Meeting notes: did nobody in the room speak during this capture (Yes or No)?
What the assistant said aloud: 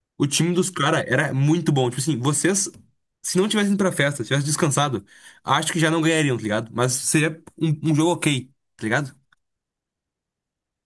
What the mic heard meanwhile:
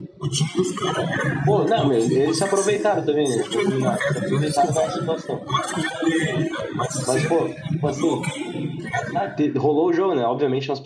No